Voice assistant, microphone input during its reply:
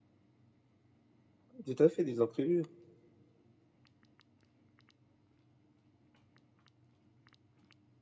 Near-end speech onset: 1.6 s

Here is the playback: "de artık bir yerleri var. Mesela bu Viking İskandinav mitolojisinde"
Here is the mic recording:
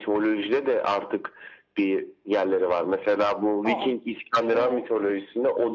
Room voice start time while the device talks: 3.7 s

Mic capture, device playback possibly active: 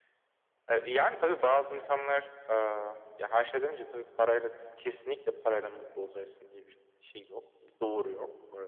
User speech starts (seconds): none

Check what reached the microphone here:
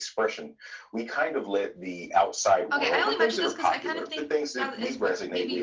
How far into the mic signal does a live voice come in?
2.7 s

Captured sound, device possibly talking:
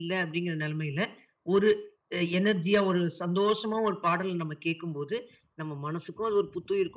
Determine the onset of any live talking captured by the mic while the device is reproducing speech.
none

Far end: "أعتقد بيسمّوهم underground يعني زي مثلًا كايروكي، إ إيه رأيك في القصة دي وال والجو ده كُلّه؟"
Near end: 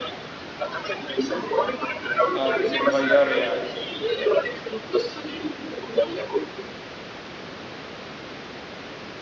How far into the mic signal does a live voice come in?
2.3 s

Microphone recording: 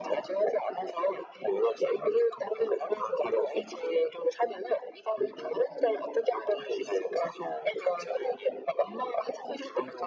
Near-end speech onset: none

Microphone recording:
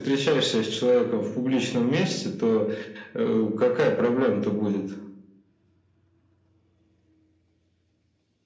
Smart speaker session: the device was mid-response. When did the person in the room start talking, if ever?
none

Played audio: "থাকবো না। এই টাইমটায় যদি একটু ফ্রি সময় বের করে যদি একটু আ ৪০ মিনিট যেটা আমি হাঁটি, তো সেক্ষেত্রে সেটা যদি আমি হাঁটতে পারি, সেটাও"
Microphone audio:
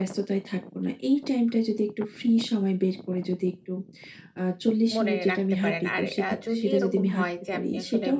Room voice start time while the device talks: 5.0 s

